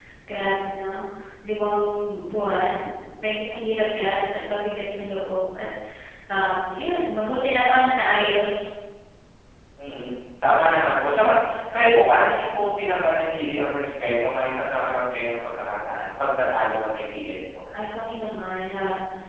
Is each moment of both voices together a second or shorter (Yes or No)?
Yes